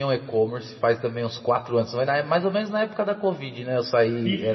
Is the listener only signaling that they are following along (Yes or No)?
Yes